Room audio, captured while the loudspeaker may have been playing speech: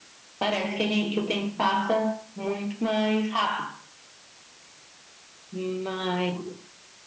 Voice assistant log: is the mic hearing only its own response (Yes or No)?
Yes